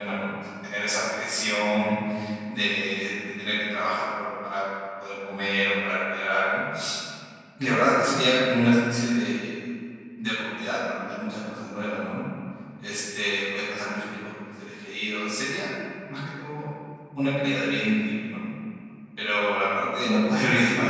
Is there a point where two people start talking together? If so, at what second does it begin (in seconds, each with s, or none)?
none